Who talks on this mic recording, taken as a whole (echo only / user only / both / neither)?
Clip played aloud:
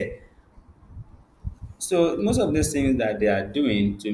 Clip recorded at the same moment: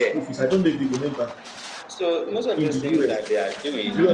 both